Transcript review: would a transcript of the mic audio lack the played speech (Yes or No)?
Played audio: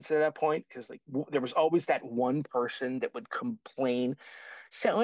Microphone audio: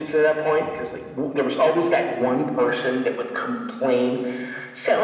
No